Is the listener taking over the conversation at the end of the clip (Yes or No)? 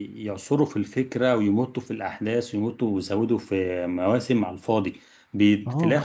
No